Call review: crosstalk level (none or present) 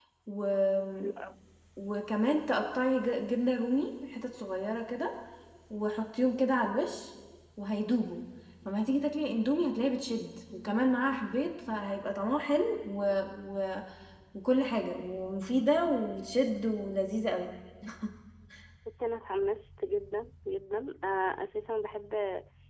none